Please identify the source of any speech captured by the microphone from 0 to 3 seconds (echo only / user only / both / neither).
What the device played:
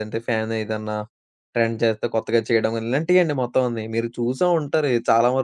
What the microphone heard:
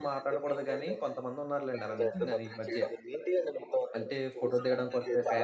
both